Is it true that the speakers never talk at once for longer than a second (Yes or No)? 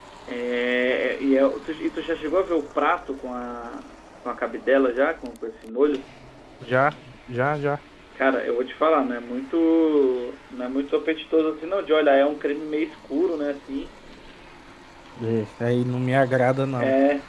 Yes